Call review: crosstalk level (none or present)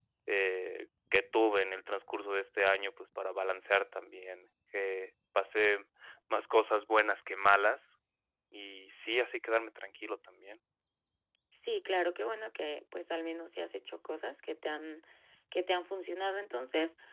none